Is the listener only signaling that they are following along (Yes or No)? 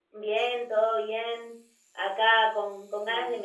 Yes